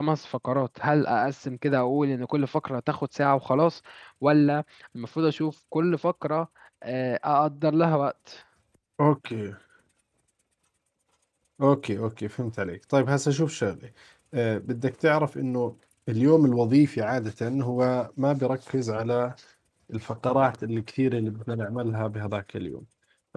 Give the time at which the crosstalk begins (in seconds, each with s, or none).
none